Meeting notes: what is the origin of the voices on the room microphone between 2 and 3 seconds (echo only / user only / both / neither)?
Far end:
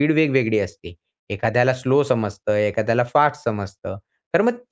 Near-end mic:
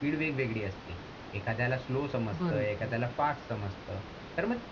both